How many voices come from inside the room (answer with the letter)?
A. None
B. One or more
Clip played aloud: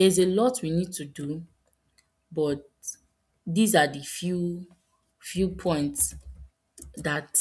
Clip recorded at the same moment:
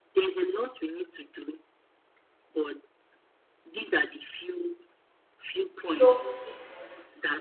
B